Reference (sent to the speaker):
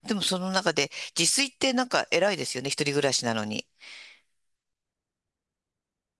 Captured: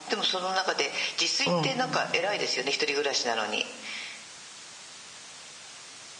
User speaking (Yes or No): Yes